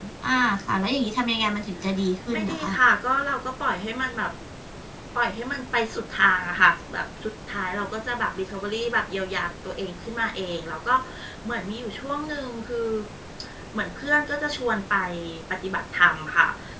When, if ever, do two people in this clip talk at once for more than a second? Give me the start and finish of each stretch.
none

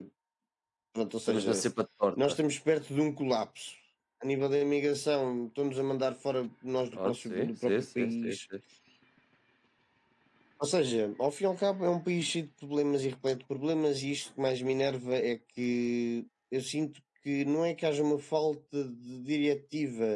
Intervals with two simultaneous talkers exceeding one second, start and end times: 6.9-8.4

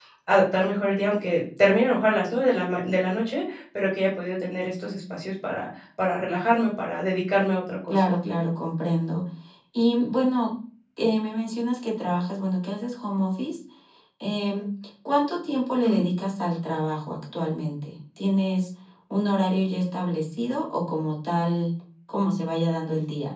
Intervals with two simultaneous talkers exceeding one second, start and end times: none

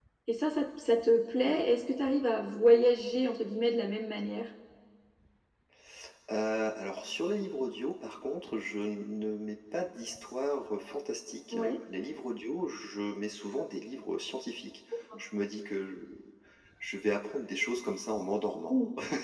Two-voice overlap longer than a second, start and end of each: none

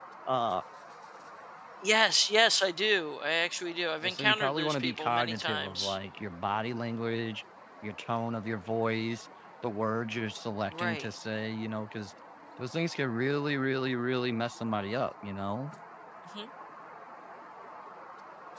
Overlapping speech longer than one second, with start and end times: 4.0-6.0

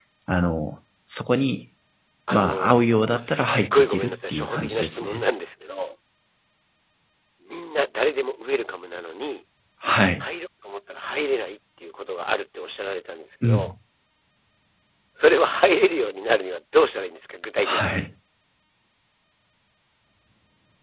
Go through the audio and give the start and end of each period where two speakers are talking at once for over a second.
2.3-5.2

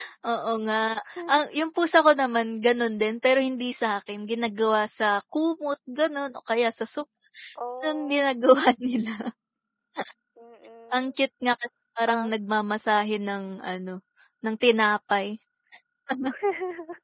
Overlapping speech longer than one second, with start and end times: none

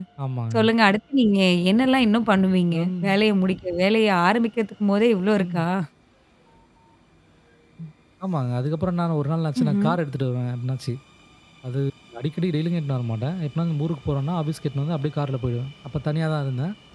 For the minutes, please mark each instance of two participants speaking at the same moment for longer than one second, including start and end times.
none

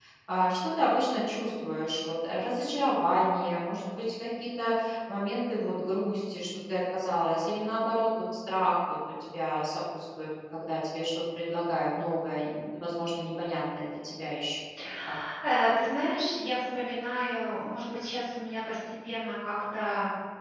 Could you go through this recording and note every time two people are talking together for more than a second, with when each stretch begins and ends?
none

